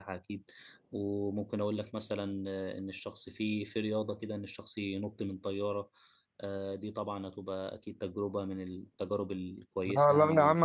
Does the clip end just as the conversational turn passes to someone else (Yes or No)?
Yes